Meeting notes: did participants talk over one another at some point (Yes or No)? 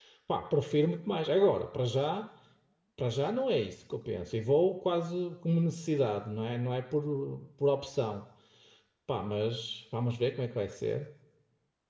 No